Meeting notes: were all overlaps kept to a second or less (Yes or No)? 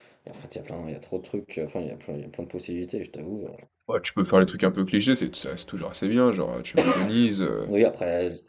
Yes